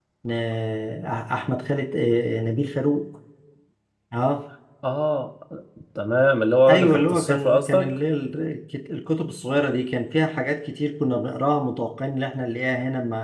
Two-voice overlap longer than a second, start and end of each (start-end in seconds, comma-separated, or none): 6.7-7.9